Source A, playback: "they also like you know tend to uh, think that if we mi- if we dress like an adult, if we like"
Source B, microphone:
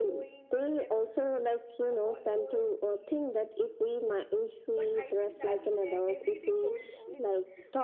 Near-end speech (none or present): present